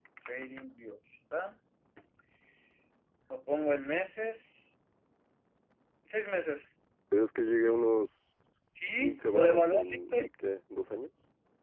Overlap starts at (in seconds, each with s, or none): 9.0 s